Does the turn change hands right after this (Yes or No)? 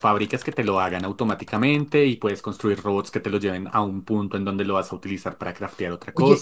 Yes